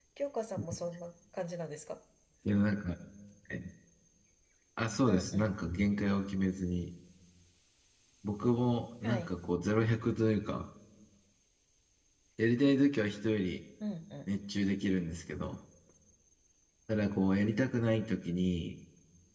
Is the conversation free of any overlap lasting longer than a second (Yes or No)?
Yes